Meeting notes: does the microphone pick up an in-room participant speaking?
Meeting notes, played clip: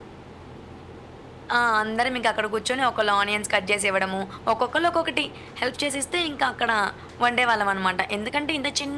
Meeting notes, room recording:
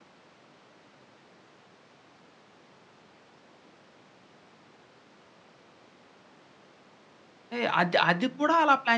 Yes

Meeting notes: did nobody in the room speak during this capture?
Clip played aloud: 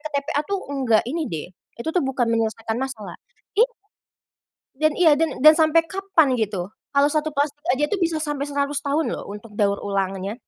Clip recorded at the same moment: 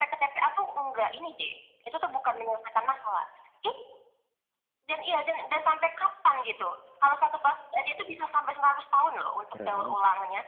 No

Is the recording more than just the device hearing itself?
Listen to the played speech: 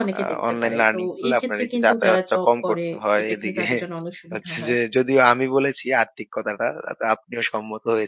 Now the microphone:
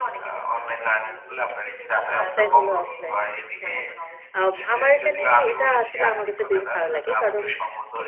Yes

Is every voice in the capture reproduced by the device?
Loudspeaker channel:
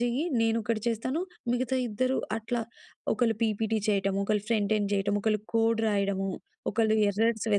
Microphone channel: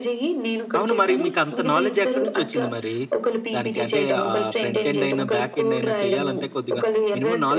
No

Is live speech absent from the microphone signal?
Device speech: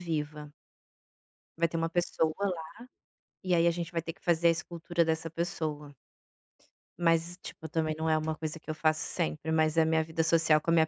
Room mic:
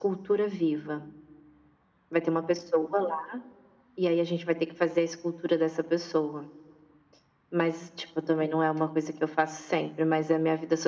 Yes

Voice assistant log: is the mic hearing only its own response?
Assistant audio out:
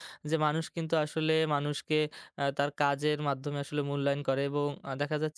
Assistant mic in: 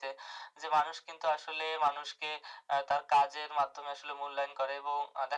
Yes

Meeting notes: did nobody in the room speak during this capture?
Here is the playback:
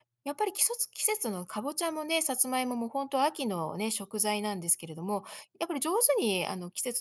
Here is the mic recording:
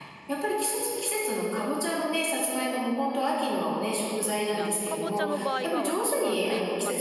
No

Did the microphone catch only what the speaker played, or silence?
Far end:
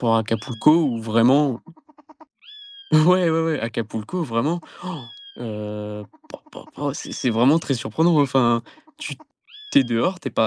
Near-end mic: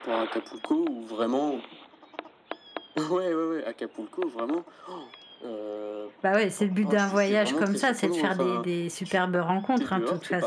No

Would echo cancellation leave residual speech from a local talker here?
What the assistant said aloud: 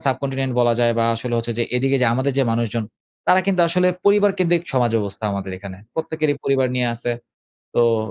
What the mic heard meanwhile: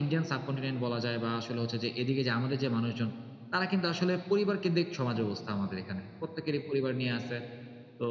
No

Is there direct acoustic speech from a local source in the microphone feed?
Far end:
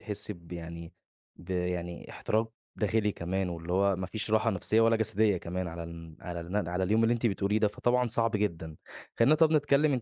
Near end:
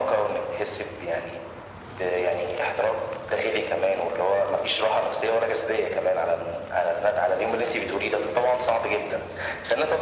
No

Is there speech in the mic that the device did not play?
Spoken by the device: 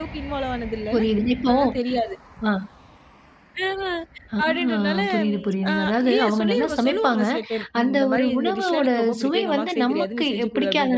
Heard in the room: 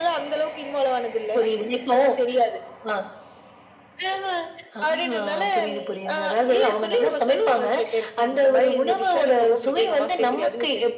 No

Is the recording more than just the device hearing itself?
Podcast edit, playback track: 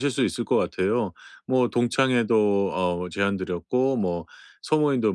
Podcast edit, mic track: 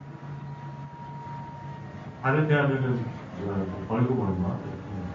Yes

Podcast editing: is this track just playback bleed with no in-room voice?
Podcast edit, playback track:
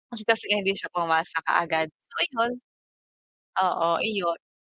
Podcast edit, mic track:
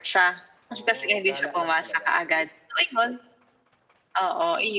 No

